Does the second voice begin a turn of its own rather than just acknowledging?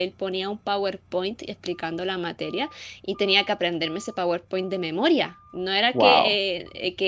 No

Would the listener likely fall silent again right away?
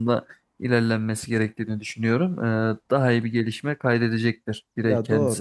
No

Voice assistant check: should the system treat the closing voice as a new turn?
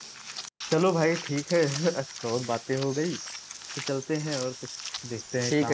Yes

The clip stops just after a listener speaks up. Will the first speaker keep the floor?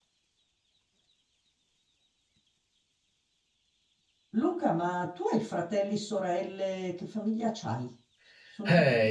No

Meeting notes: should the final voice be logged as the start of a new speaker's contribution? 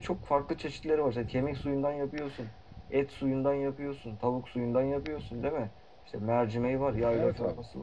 No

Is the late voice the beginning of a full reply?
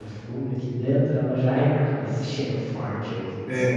Yes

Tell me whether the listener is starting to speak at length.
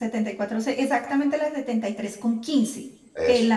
No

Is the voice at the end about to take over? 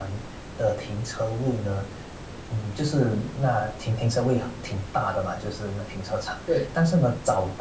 No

